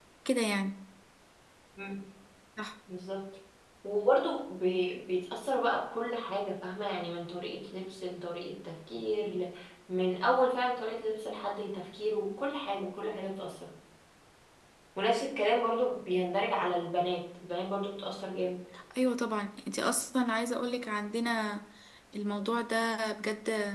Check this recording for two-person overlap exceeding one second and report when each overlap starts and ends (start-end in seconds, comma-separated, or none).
none